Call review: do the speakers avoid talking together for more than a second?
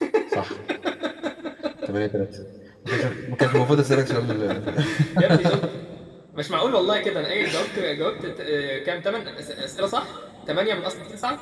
Yes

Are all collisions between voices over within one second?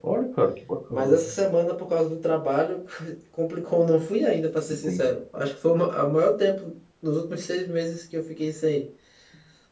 Yes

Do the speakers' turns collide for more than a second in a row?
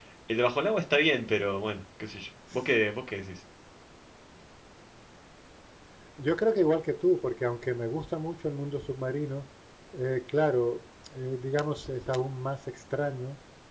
No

